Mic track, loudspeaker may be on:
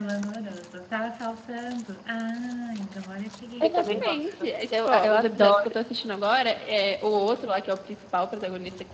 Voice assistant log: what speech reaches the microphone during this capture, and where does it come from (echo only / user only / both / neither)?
both